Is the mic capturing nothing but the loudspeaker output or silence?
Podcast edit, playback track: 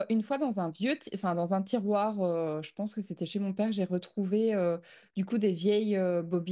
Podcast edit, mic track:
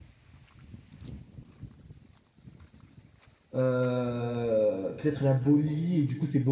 No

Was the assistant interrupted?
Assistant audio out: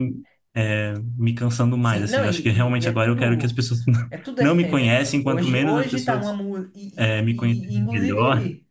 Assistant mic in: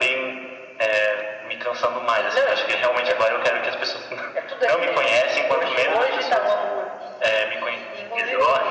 No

